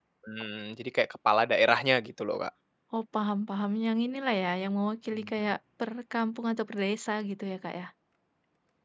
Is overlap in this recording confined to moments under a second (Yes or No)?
Yes